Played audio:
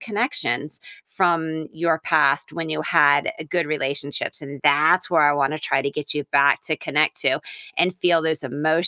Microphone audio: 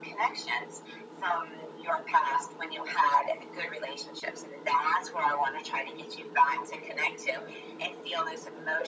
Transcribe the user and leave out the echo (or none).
none